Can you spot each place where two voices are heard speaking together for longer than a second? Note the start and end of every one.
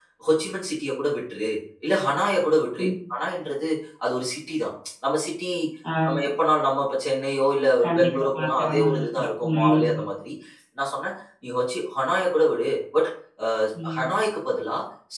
7.8-10.0

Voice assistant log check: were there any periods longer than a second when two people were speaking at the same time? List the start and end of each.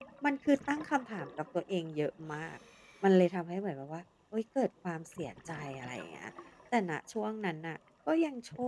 none

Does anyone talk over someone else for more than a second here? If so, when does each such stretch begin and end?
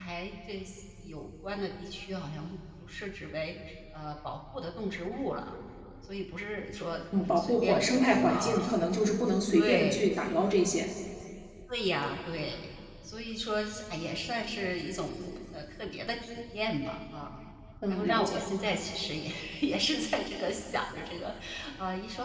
7.2-8.7

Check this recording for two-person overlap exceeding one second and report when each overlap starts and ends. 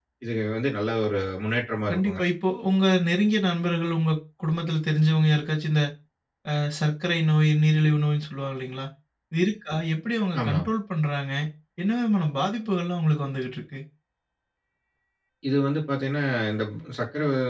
none

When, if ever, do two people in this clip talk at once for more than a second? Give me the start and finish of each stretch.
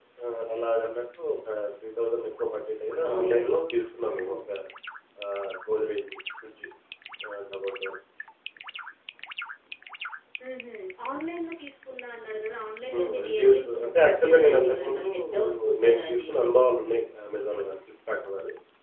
3.1-4.3, 12.9-16.3

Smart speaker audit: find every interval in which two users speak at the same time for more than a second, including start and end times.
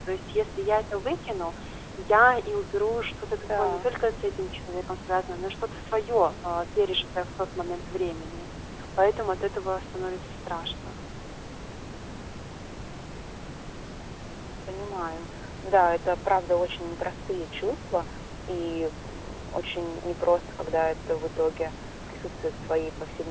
none

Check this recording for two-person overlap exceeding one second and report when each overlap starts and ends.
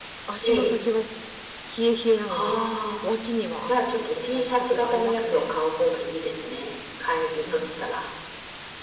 3.7-5.6

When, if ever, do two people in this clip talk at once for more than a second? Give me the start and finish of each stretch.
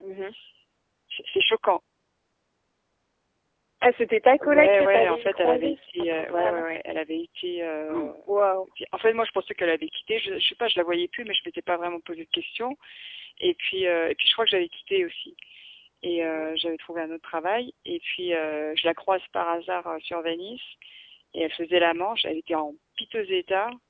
4.4-6.8

